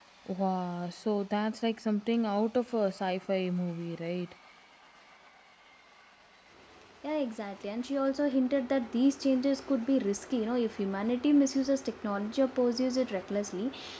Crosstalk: none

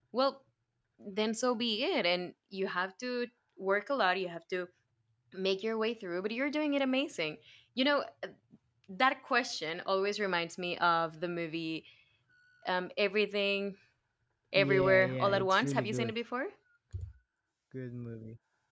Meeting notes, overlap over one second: present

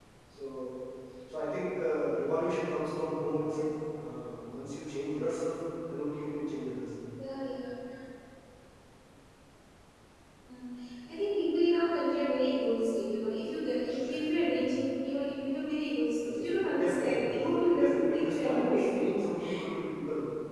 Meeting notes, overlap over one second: present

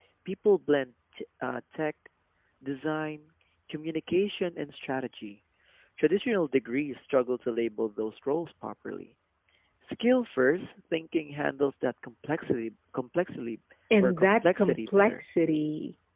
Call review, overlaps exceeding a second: present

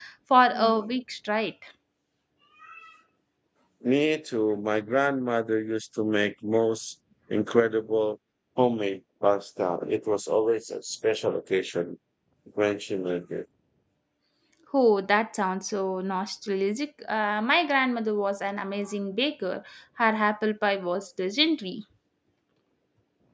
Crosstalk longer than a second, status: none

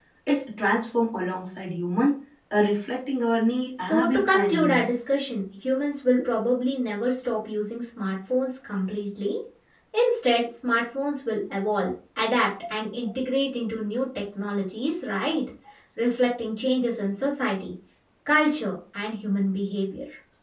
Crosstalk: present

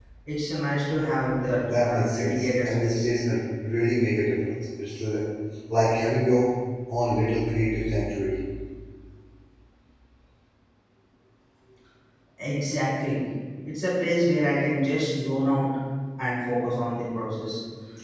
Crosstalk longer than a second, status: present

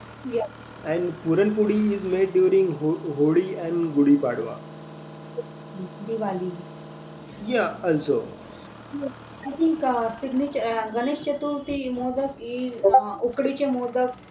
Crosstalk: none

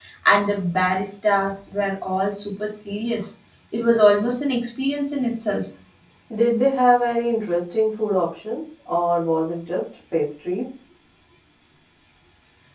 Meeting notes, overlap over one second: none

